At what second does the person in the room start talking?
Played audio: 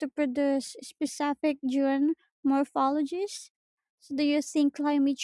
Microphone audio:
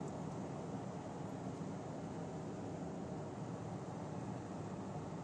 none

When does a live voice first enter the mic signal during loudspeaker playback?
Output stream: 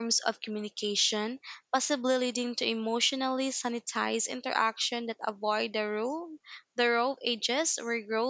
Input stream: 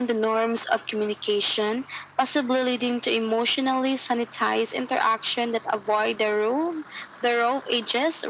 none

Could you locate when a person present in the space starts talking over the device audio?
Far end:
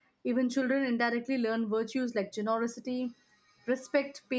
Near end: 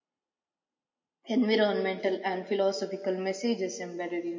1 s

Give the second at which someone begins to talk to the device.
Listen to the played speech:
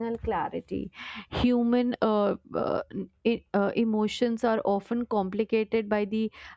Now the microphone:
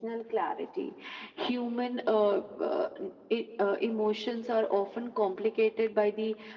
none

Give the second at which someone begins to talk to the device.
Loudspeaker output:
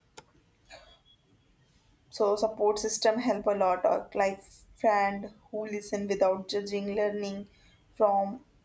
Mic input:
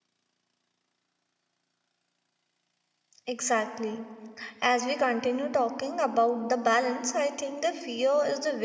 3 s

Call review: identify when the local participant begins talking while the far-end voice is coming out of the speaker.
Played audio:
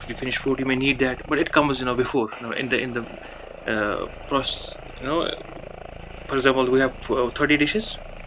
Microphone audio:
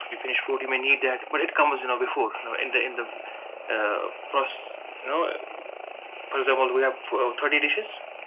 none

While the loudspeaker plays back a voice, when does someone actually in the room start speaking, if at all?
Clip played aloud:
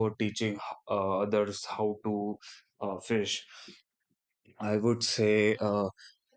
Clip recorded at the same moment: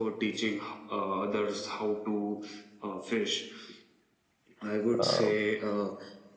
5 s

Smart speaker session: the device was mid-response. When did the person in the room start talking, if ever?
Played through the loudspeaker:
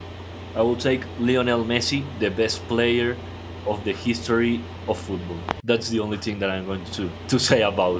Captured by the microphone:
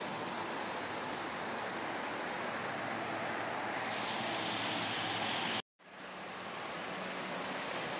none

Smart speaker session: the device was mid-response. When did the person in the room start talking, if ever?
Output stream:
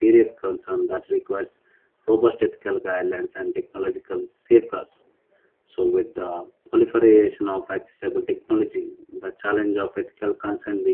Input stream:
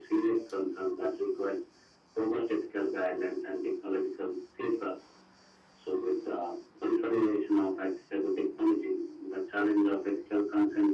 none

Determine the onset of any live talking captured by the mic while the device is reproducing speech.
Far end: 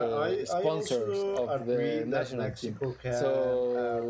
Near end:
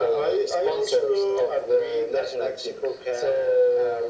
none

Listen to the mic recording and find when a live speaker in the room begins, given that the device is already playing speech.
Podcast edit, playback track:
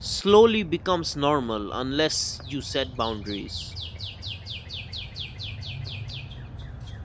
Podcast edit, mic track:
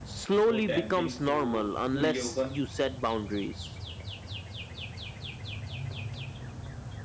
0 s

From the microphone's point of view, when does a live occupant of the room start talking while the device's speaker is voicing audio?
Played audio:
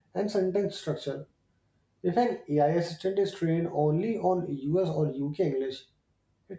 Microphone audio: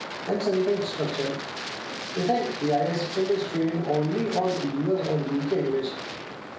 none

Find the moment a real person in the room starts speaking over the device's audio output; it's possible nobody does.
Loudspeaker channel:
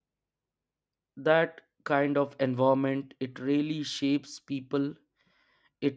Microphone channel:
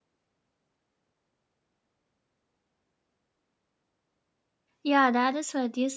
5 s

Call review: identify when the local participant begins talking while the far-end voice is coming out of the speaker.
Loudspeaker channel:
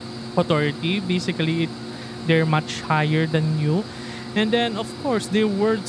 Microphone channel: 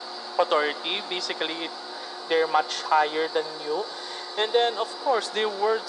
none

